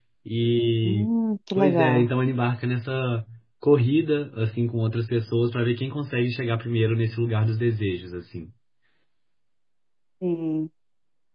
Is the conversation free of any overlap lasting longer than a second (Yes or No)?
Yes